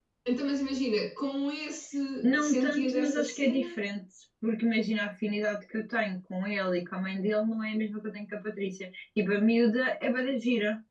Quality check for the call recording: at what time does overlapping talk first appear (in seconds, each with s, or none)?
2.4 s